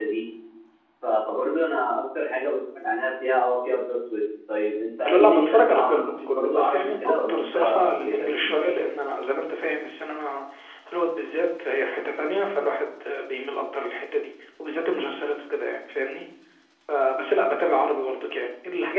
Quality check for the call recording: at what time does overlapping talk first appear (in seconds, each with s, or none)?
5.0 s